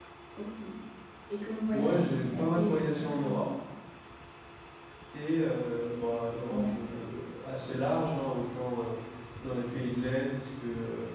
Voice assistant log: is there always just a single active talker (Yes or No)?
No